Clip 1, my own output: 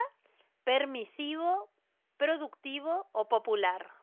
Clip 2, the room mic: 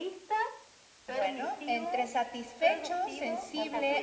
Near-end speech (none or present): present